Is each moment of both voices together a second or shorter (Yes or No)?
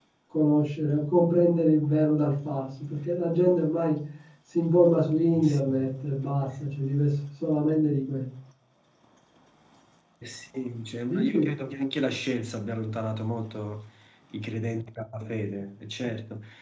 Yes